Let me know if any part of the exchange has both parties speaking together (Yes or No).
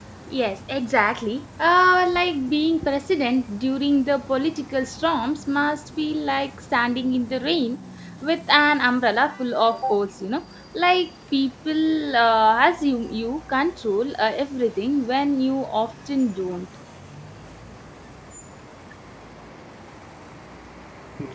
No